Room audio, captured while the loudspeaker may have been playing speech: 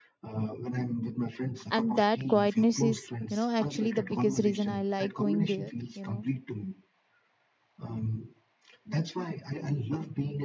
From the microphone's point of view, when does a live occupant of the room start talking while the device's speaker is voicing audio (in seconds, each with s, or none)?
1.7 s